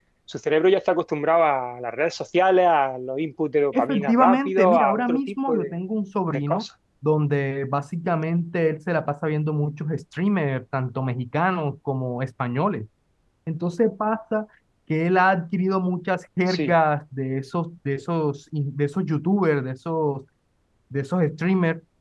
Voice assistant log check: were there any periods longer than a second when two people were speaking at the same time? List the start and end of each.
3.7-5.7

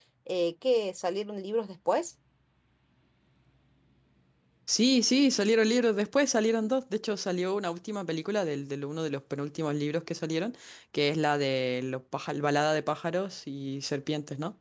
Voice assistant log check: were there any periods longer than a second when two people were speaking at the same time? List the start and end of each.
none

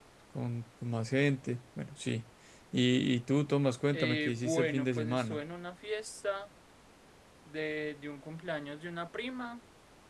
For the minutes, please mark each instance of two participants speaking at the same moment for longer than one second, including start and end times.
3.9-5.4

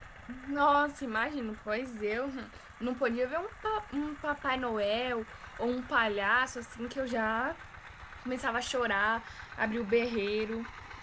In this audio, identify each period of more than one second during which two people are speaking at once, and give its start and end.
none

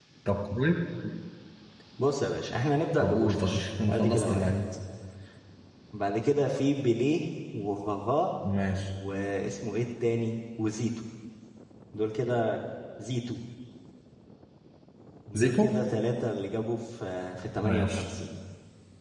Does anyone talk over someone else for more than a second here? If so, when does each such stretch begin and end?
3.0-4.5

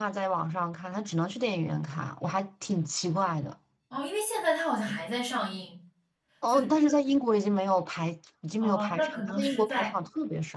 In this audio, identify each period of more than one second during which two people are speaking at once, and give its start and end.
8.6-10.0

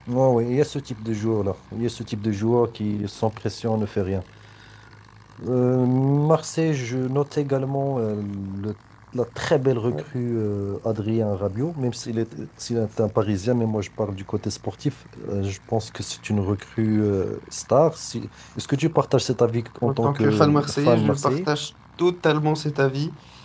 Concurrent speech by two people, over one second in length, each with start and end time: 19.8-21.4

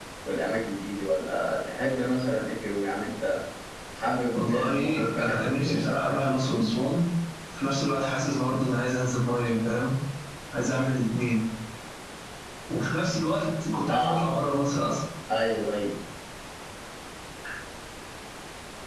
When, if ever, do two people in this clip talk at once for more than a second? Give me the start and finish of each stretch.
4.3-5.9

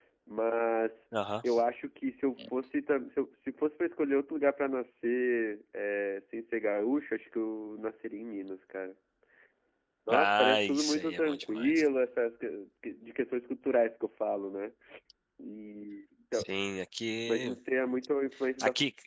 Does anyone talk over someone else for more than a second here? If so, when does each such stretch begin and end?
10.1-11.8

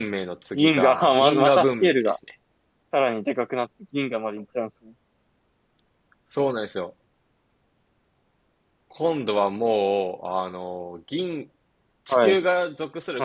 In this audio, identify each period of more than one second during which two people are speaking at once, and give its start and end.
0.6-2.1

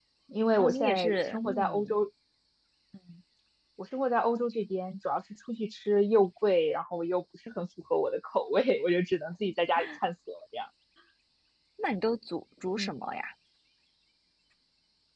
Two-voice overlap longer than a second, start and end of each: 0.6-2.0

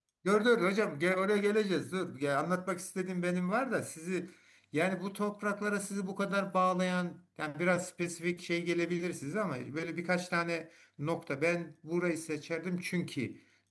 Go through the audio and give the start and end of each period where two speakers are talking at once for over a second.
none

